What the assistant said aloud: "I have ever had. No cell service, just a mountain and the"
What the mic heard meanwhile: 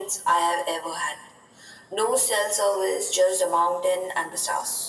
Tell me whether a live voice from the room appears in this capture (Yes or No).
No